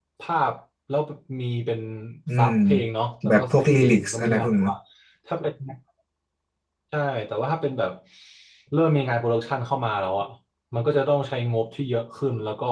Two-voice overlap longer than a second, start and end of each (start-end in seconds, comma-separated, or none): 3.3-4.7